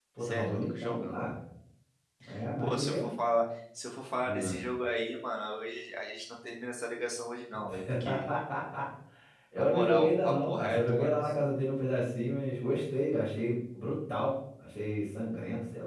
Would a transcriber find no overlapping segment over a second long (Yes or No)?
No